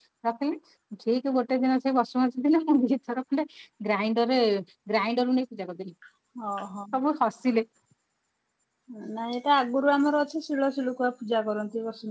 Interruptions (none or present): none